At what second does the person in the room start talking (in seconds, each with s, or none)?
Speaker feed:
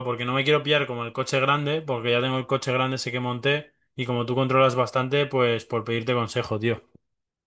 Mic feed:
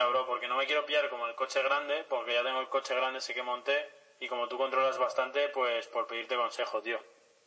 none